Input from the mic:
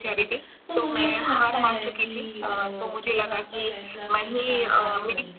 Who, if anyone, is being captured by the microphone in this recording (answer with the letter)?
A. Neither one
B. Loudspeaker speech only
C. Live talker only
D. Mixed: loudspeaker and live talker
D